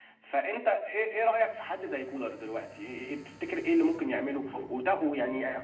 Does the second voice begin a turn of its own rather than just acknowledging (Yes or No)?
No